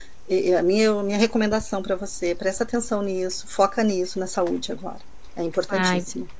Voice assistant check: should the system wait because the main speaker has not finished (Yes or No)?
No